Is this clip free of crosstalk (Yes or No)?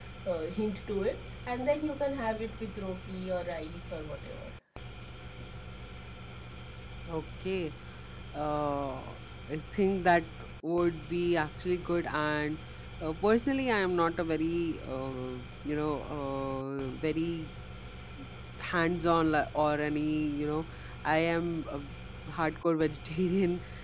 Yes